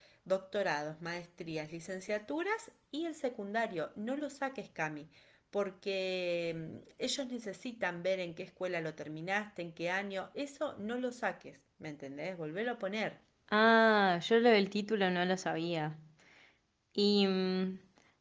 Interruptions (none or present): none